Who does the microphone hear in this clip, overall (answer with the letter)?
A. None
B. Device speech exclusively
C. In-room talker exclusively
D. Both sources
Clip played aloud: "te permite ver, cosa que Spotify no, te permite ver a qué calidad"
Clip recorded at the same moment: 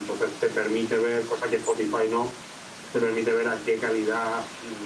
B